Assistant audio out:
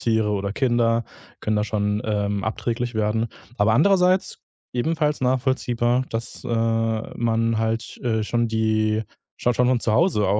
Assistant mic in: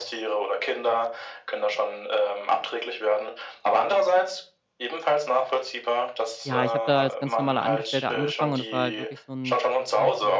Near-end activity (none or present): present